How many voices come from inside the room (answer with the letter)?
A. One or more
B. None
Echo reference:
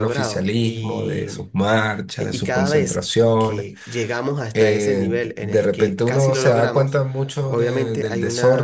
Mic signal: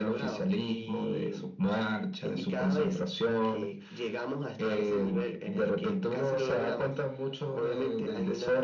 B